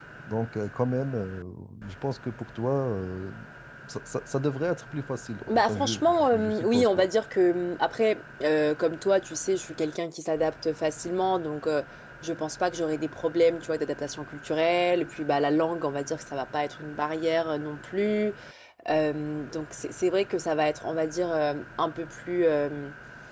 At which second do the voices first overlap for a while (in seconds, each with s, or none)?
5.5 s